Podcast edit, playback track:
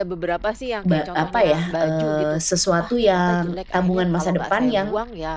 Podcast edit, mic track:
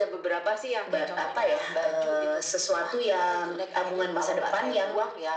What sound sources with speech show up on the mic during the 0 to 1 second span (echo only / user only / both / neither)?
echo only